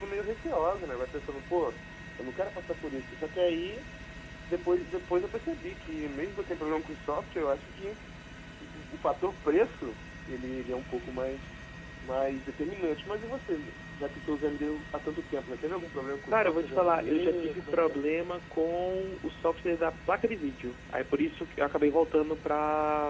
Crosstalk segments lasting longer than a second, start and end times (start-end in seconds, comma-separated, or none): 16.3-18.0